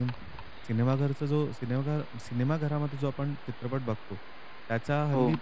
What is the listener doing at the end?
listening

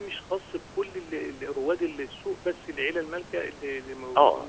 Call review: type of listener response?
taking over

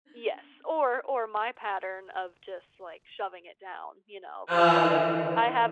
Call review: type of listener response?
listening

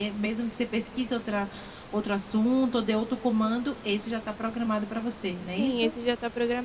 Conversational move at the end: taking over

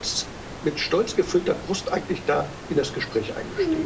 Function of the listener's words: taking over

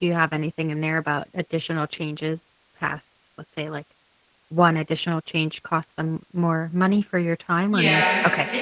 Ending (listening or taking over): taking over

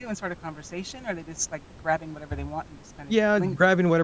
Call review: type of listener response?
taking over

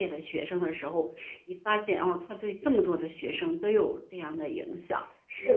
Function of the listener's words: taking over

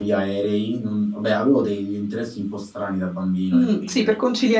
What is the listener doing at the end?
taking over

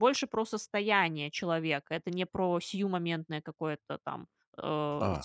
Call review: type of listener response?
taking over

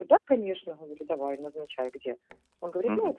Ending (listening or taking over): taking over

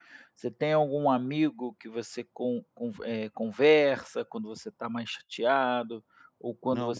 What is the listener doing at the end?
listening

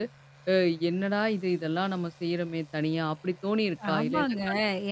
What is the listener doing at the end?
taking over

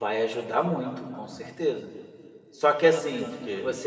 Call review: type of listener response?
listening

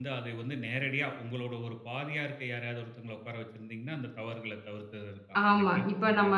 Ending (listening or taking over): taking over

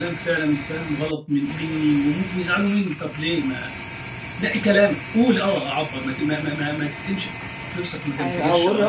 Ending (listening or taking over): taking over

